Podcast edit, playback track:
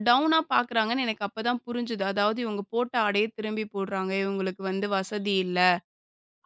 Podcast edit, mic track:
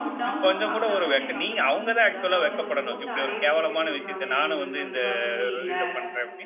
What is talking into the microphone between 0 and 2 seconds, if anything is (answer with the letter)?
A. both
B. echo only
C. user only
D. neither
A